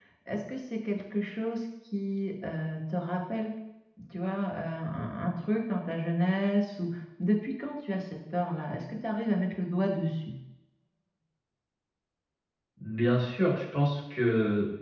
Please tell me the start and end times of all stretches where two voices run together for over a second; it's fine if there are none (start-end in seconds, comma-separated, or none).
none